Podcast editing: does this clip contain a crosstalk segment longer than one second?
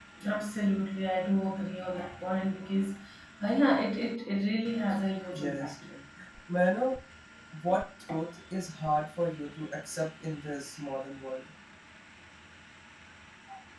No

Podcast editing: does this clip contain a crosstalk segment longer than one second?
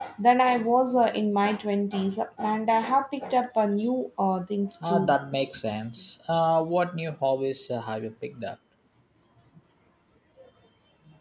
No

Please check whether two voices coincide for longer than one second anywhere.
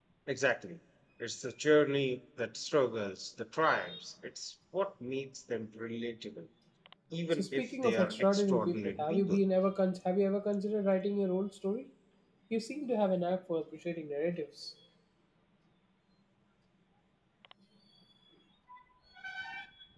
Yes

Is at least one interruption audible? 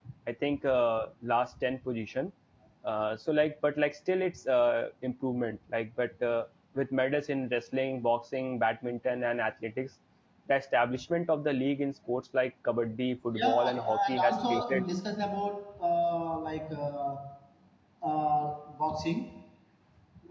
Yes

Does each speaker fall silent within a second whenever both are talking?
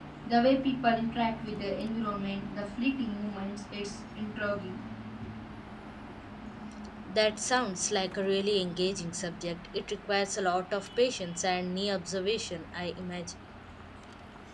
Yes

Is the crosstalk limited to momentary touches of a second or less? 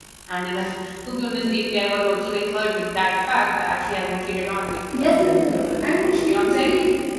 No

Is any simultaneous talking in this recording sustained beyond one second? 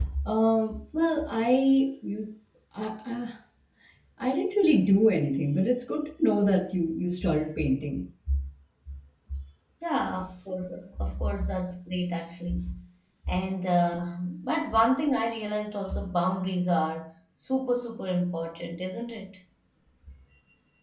No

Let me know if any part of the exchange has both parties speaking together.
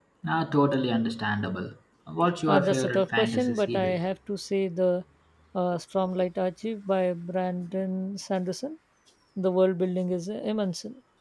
Yes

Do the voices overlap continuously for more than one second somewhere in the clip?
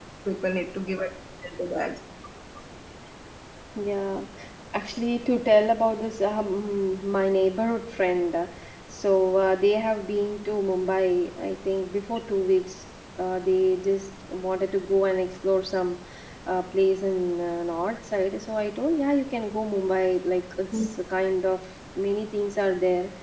No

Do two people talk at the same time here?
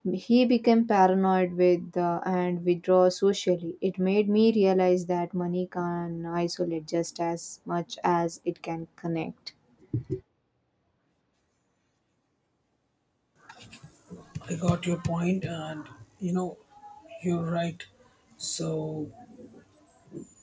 No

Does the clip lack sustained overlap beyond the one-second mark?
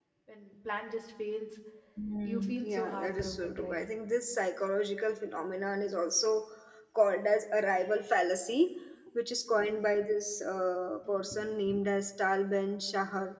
No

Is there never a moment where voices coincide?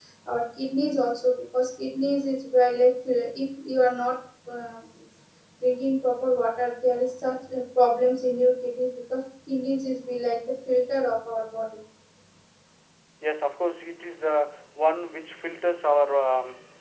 Yes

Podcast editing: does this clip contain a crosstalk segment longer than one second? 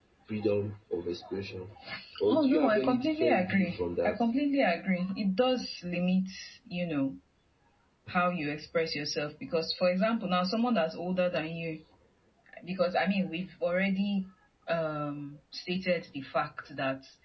Yes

